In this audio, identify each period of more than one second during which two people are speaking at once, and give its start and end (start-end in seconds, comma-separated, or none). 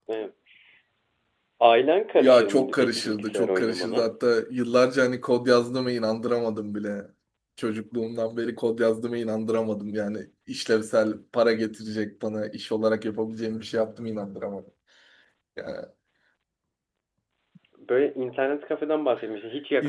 2.2-4.0